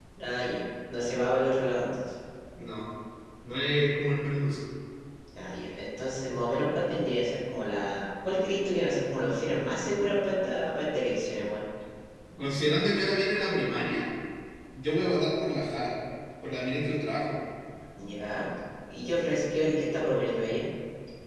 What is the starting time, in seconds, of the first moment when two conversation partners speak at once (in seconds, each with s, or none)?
none